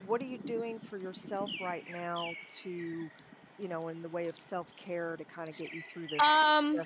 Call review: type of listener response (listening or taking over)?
taking over